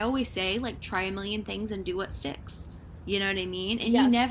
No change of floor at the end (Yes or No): Yes